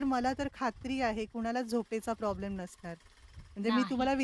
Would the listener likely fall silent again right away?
Yes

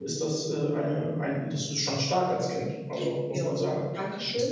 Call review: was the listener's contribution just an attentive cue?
No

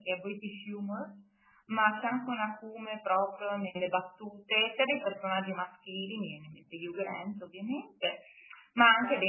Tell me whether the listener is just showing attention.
Yes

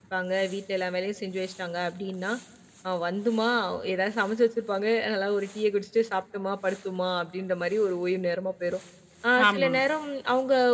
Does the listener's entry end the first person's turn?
No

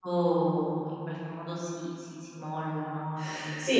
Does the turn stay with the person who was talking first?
No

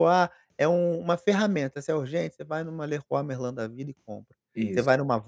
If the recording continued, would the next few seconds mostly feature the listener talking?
No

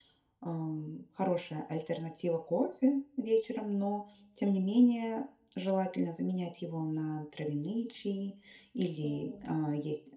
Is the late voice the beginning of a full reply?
No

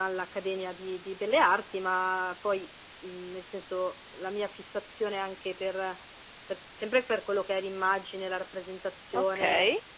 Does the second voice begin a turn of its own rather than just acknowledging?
No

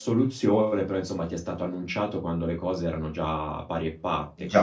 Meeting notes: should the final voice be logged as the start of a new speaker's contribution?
Yes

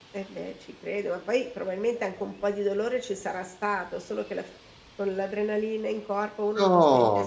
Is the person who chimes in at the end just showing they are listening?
No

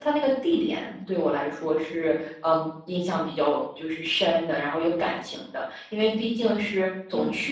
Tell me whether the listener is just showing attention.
Yes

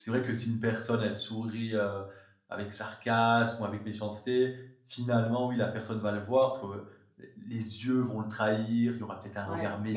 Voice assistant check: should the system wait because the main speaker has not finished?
No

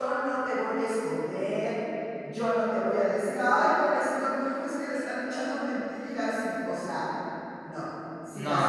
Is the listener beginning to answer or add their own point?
No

